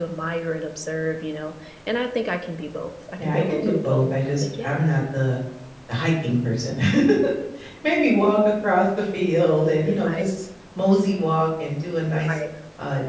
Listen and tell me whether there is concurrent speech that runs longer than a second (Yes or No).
Yes